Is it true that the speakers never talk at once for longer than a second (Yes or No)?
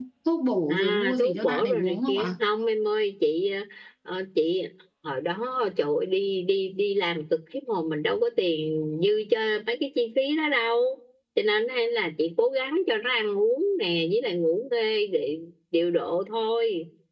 No